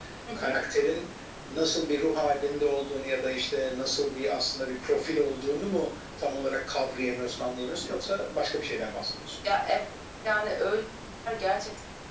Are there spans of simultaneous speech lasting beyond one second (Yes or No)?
No